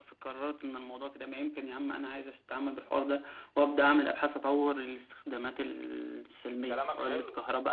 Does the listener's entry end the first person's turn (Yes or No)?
Yes